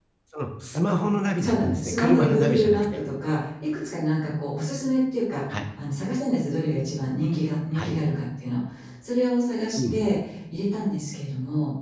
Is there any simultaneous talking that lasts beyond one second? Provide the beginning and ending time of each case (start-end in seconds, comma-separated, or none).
1.4-3.0